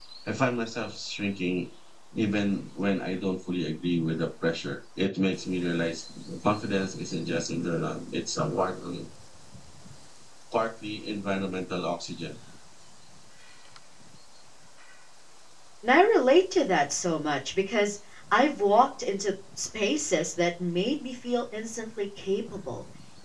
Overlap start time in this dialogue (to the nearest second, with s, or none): none